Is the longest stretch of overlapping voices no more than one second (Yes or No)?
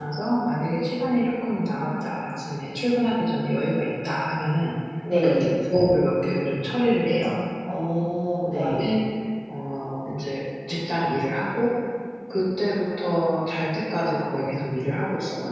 Yes